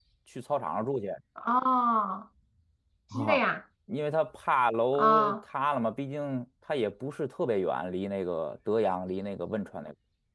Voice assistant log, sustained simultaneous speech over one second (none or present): none